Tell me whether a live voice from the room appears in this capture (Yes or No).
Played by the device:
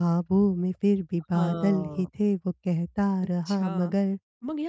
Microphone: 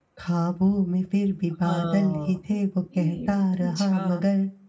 Yes